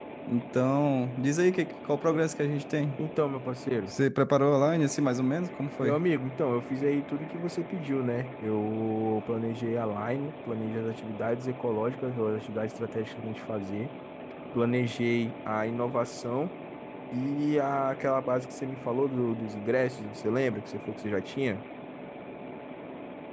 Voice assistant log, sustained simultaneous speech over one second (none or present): none